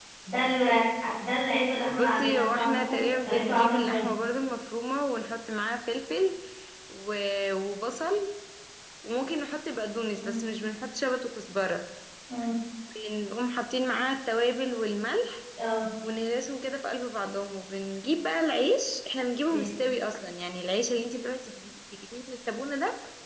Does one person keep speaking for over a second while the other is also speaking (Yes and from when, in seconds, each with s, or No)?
Yes, from 1.9 s